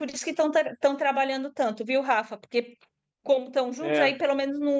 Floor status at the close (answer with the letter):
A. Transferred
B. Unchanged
B